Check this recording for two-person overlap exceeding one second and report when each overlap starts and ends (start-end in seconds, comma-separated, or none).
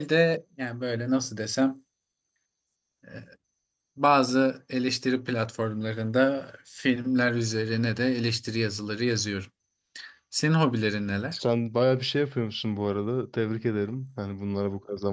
none